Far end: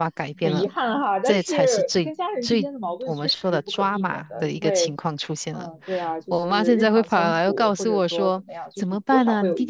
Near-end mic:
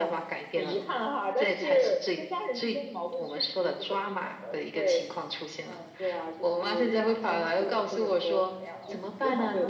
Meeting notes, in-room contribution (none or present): present